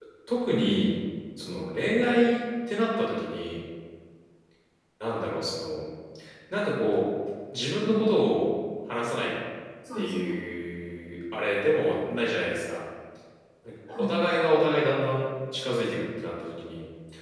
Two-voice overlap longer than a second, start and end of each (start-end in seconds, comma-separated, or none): none